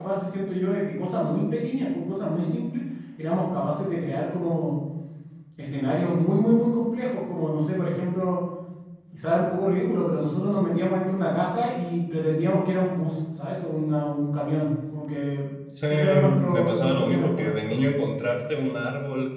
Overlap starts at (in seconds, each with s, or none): 15.9 s